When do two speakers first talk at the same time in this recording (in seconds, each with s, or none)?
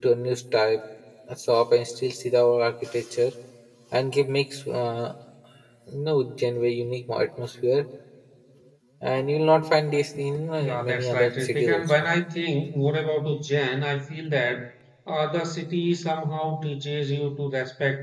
10.6 s